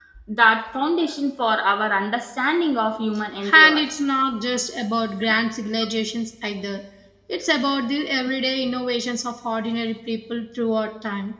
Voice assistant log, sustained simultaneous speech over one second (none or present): none